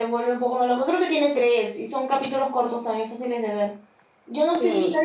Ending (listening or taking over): listening